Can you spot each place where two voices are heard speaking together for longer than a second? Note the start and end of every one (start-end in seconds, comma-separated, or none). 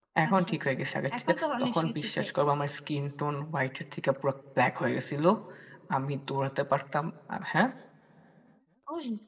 1.2-2.4